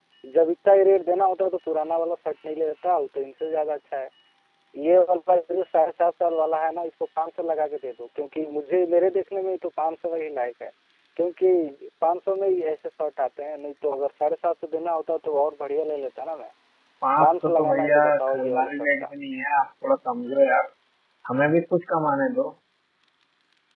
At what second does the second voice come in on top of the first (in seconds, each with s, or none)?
17.2 s